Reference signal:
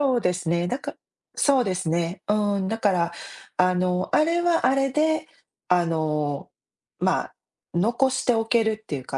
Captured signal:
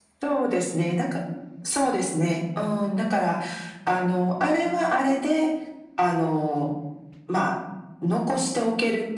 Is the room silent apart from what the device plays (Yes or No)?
Yes